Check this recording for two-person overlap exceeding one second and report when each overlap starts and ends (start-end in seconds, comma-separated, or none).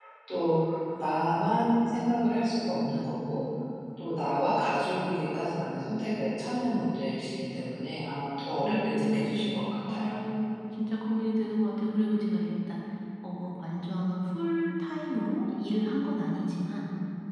8.6-10.2